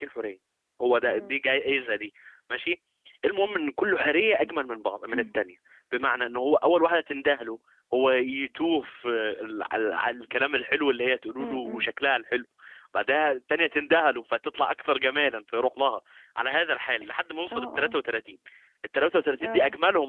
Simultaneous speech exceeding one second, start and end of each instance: none

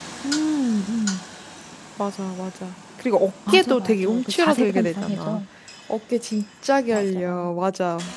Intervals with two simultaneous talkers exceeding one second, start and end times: 3.5-5.4

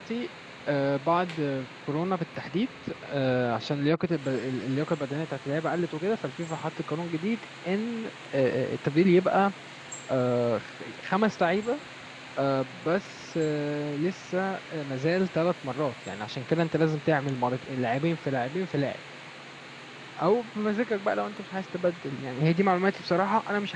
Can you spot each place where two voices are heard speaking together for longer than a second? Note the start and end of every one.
none

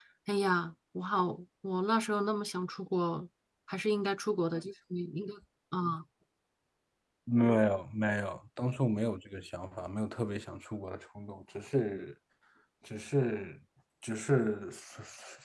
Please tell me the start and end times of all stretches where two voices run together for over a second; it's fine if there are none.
none

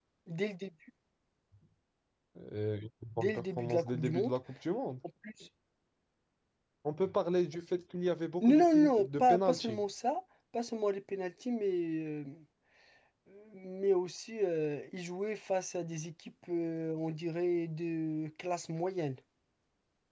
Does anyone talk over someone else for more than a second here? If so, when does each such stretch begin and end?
3.2-4.4, 8.4-9.8

